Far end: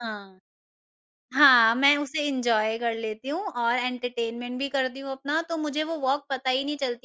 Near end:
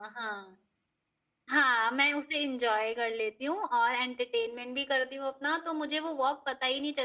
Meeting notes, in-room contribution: none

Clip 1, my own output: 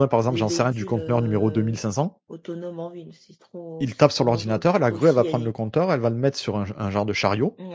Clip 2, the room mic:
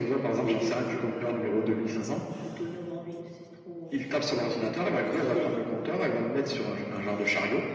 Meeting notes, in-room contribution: none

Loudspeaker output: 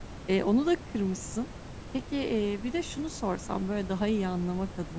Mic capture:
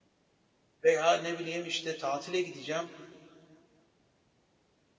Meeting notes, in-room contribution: present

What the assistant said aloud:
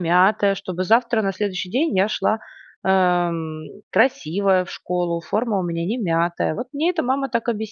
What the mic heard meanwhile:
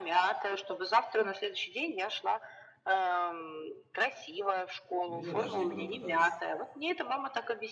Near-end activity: present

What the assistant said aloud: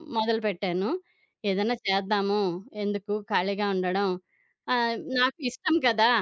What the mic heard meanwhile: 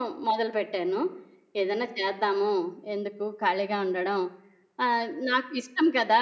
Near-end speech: none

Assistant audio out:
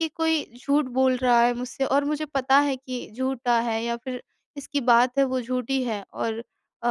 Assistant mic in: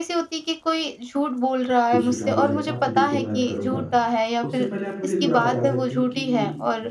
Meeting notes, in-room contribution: present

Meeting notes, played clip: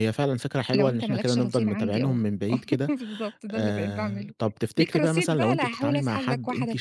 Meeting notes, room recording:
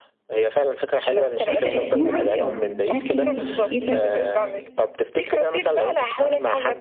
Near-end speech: present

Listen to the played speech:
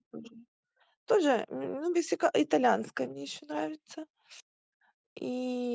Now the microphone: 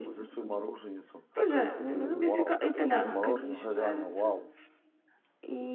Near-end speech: present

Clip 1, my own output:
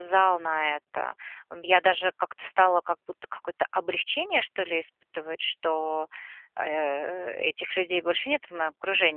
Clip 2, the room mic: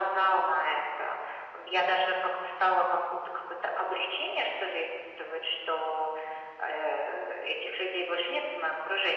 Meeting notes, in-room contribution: none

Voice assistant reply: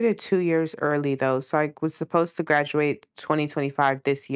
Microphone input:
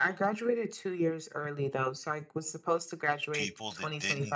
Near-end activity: present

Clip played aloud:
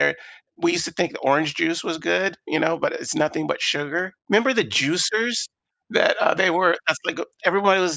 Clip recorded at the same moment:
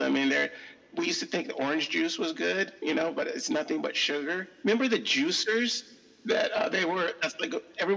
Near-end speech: none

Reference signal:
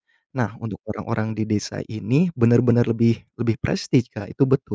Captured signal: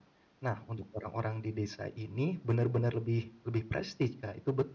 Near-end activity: none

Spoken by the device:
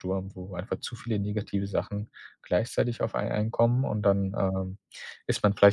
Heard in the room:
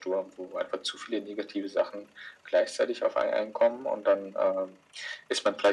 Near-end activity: none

